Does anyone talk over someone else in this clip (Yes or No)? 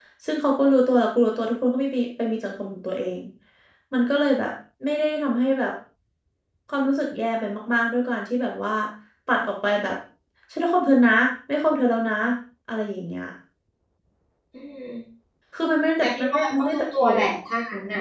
Yes